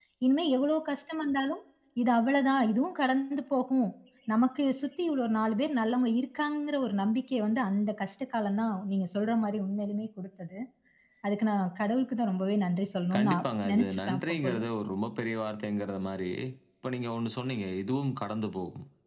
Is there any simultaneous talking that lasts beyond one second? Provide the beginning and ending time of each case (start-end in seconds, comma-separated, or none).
13.2-14.6